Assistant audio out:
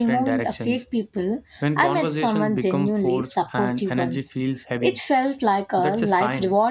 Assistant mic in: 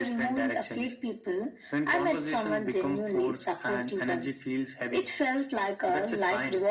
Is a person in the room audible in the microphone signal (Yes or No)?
No